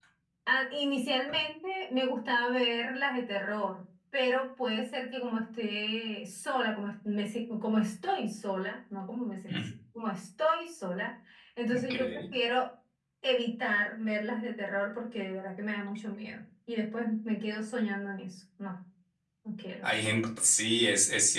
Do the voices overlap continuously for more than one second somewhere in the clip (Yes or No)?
No